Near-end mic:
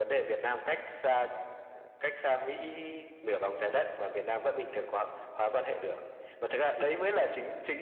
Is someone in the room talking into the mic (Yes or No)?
No